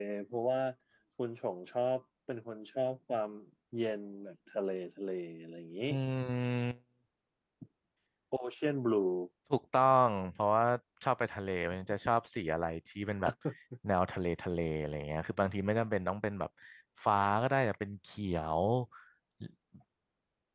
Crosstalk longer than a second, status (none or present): none